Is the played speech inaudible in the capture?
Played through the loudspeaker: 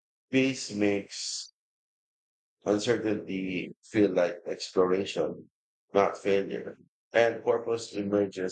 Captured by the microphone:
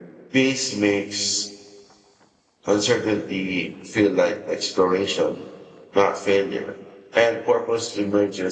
No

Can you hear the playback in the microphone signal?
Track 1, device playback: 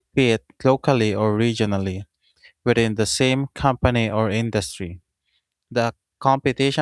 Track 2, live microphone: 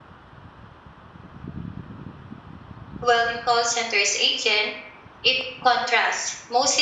No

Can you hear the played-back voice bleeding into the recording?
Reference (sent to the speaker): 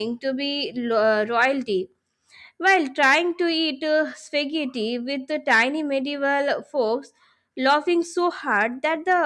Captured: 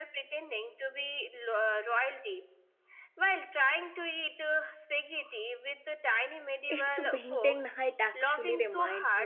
Yes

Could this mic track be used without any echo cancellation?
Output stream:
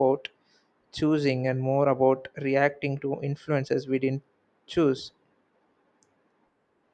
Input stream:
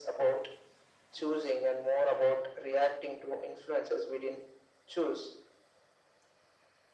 No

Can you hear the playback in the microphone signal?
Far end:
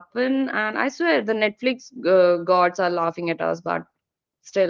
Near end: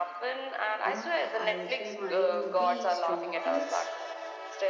Yes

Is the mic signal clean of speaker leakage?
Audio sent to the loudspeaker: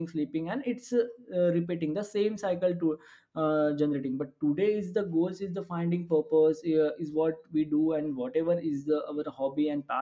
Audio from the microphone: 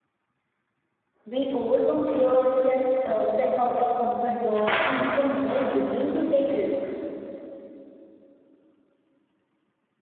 Yes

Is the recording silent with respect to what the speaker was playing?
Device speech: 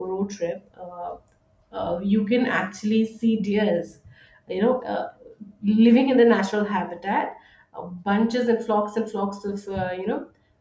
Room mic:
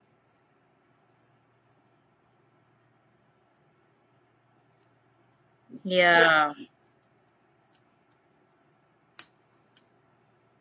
Yes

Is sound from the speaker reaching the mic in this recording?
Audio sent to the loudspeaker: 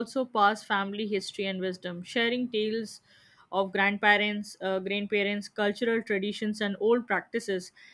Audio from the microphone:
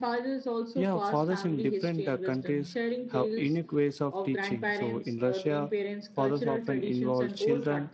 Yes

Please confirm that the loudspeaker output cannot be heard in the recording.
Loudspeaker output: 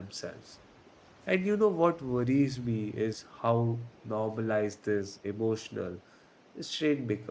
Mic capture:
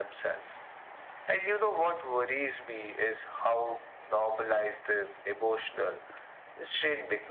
No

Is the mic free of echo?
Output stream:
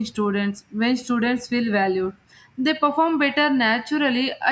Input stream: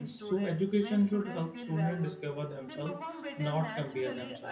No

